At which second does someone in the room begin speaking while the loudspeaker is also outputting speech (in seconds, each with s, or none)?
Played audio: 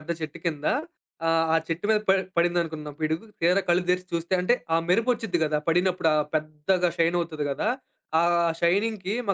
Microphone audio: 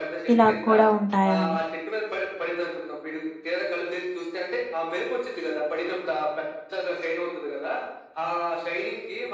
0.3 s